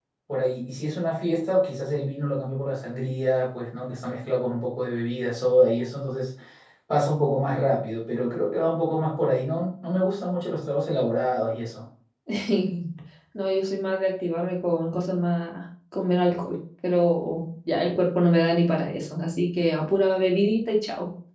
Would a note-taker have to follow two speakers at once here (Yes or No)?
No